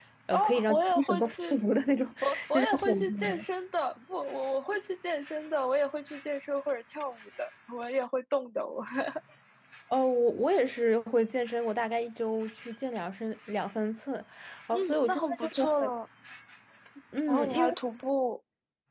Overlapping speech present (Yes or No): Yes